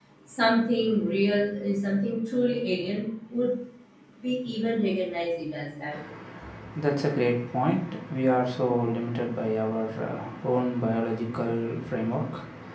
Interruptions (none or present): none